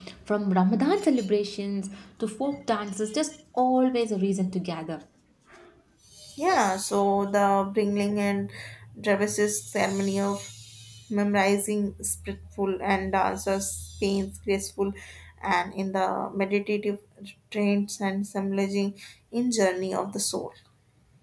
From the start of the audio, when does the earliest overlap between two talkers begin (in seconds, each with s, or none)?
none